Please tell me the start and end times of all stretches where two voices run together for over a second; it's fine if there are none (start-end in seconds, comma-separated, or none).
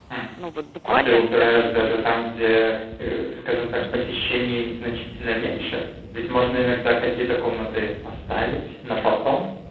0.9-2.1